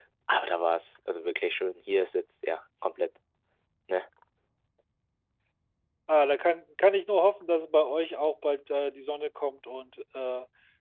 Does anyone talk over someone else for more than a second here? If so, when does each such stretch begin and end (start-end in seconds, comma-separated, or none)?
none